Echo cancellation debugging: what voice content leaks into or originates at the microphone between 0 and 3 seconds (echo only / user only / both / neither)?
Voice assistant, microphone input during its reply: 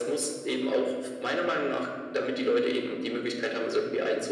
echo only